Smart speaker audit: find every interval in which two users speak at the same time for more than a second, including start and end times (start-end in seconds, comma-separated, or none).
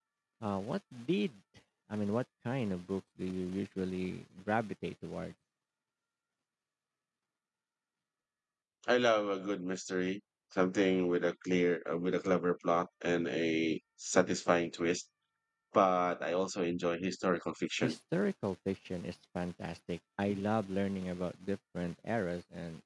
none